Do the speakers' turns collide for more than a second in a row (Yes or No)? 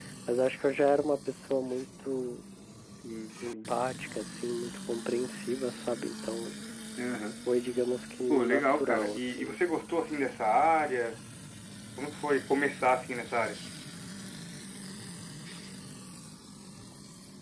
Yes